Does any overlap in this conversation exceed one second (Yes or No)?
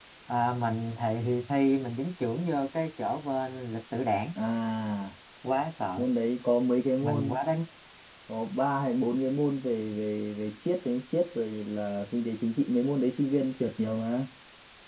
No